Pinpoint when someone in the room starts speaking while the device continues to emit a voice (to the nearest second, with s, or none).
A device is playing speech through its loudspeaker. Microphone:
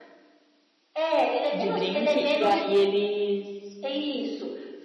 2 s